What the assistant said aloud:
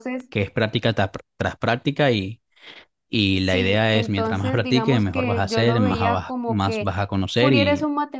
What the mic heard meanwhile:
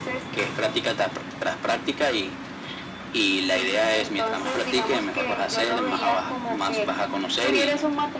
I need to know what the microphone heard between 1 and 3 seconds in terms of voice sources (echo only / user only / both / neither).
echo only